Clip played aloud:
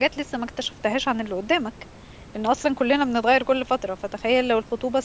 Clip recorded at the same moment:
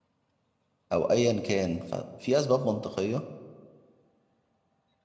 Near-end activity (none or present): present